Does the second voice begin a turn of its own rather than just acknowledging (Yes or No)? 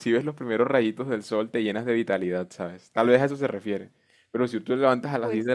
No